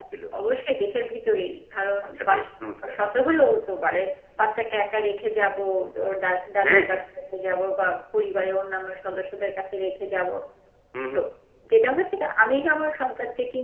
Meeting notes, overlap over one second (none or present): none